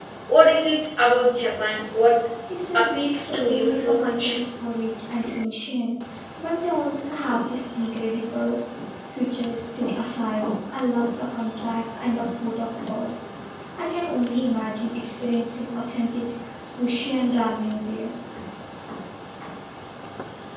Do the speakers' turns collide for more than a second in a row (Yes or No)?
Yes